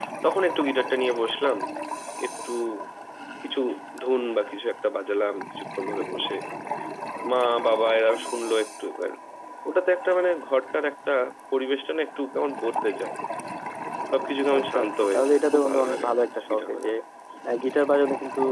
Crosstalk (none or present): present